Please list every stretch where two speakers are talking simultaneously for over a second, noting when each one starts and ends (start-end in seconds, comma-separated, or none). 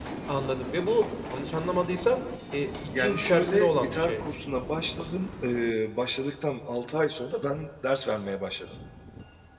3.0-4.2